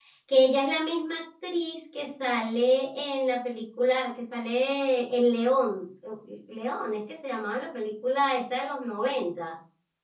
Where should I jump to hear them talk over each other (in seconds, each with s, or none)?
none